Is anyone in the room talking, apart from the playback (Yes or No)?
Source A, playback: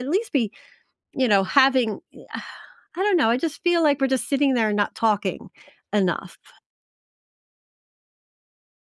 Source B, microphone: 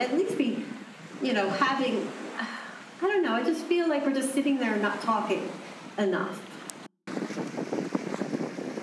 No